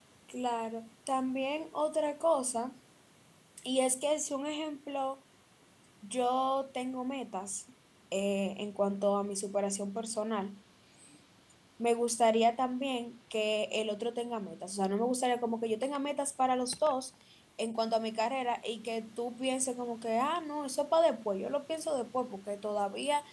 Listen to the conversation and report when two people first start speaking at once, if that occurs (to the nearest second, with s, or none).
none